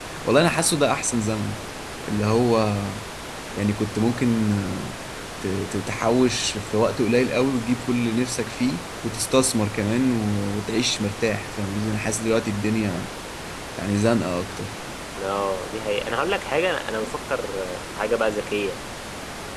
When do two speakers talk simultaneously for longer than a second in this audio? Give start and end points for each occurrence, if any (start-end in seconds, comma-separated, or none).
none